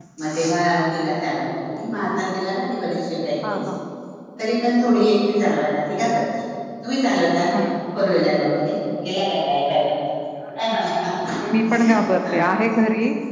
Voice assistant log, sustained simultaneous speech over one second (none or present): none